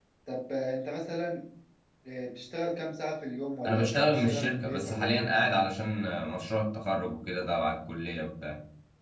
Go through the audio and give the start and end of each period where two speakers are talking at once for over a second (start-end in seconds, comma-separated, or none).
3.6-5.2